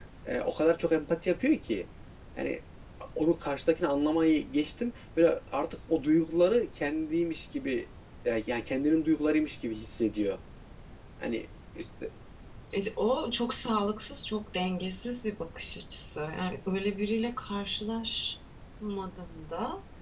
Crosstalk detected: No

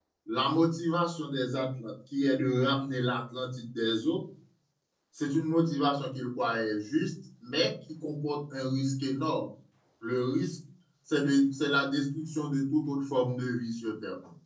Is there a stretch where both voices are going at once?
No

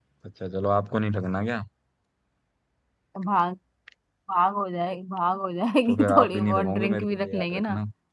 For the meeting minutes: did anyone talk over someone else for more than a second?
Yes, from 5.9 s

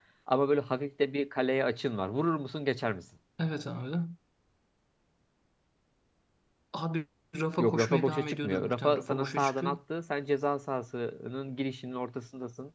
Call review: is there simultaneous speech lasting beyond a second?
Yes, from 7.6 s

